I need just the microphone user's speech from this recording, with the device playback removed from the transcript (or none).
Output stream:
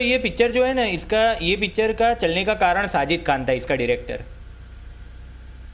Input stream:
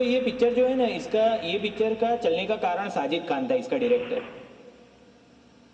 none